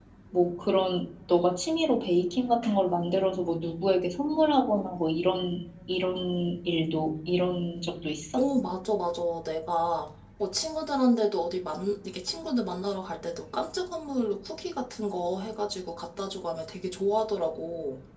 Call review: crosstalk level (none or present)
none